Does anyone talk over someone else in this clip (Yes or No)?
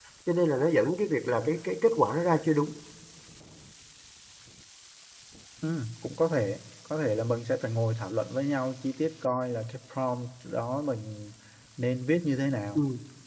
No